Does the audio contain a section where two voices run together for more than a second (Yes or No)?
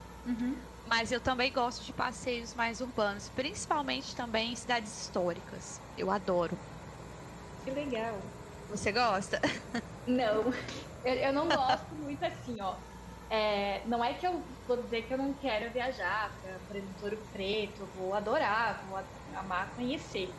No